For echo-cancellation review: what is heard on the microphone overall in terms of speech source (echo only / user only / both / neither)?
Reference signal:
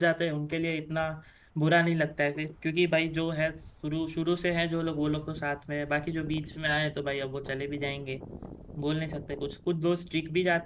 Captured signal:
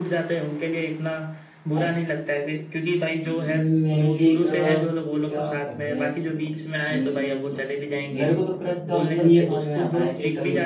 both